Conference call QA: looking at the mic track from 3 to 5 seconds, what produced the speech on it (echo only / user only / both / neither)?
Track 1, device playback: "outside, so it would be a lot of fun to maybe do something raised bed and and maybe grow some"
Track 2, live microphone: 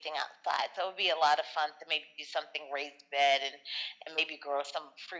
echo only